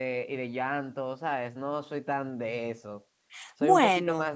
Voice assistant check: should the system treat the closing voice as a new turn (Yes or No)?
No